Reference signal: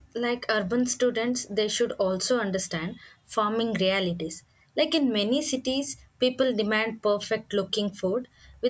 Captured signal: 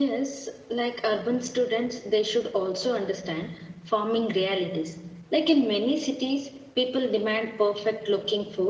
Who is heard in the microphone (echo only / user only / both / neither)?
echo only